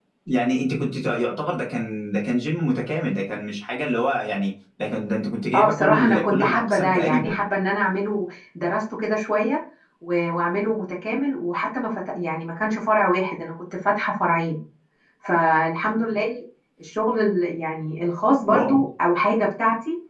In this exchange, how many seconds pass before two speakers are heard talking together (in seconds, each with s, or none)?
5.5 s